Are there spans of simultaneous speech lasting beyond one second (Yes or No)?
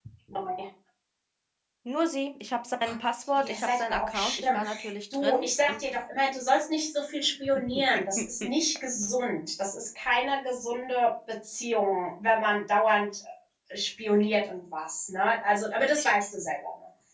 Yes